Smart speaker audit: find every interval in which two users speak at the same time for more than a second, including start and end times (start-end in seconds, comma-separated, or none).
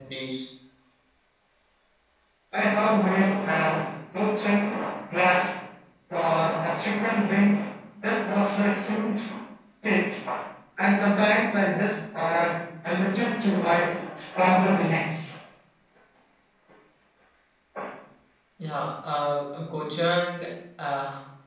none